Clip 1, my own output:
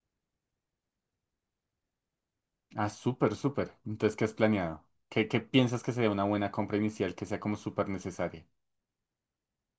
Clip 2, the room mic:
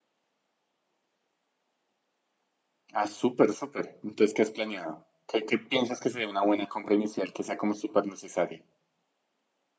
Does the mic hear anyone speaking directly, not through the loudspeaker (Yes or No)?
No